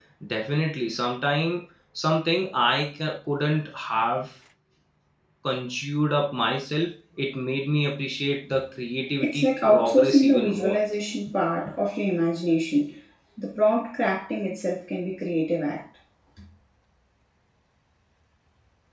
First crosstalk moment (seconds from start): 9 s

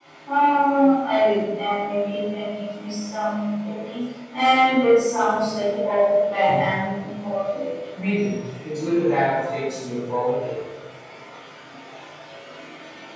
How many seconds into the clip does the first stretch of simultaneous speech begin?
none

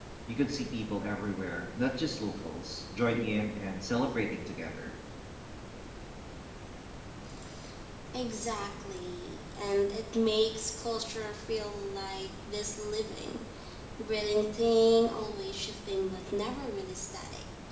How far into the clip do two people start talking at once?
none

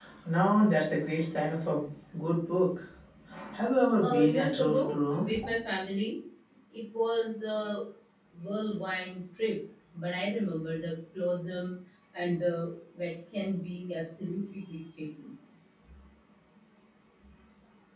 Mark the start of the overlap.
4 s

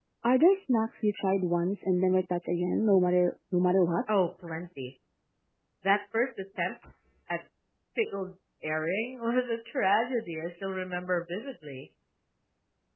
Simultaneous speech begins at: none

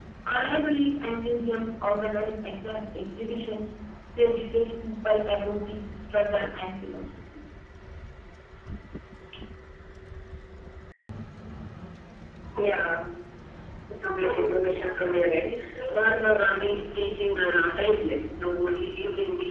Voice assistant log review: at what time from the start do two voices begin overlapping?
none

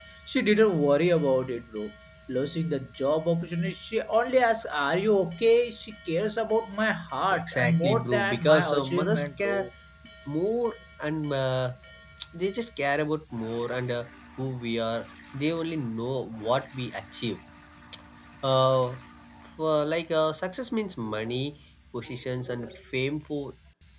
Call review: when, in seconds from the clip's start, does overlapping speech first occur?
7 s

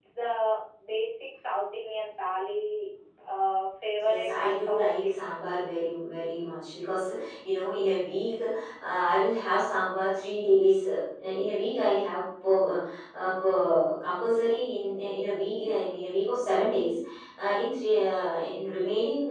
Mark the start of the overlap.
4 s

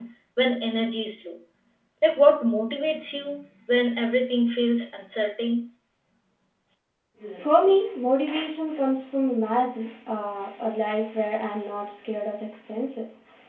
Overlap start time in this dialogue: none

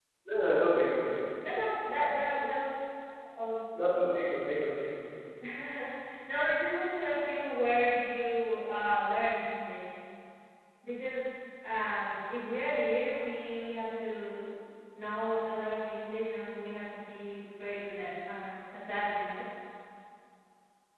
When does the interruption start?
none

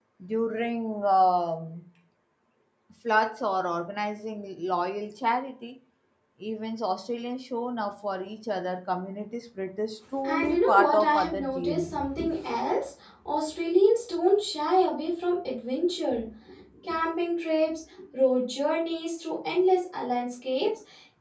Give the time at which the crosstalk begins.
10 s

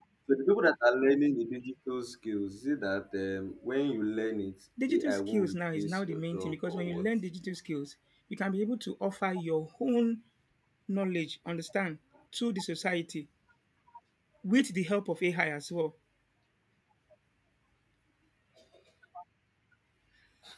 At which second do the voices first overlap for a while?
5 s

